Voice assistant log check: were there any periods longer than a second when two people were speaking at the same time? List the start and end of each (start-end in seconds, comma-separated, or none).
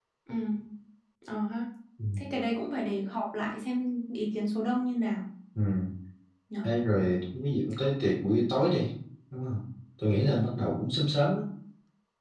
none